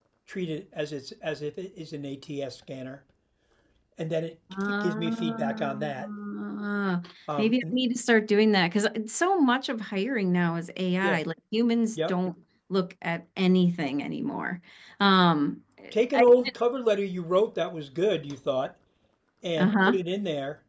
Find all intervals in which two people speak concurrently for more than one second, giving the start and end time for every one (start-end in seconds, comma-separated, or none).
4.6-6.1